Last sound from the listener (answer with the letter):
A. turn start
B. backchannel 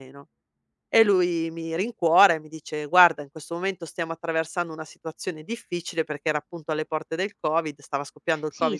A